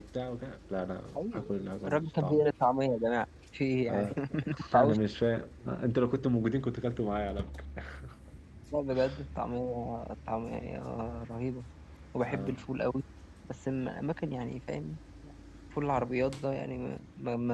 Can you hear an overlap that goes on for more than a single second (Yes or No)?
Yes